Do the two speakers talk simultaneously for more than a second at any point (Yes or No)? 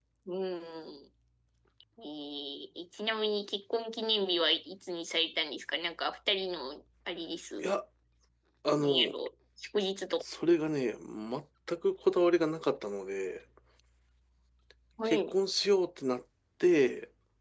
No